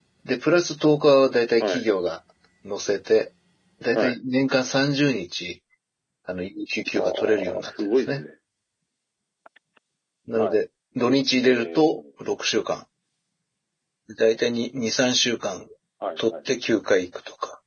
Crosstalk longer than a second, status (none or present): present